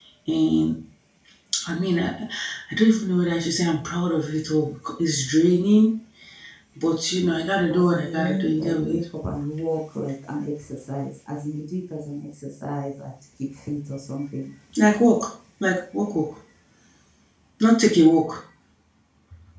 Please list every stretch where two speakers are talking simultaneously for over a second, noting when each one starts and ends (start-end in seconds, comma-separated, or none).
7.7-9.0